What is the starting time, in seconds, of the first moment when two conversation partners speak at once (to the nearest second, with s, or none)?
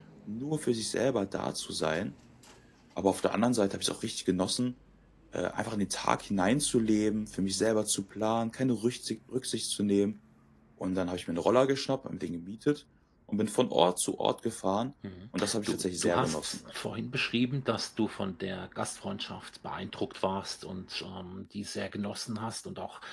15 s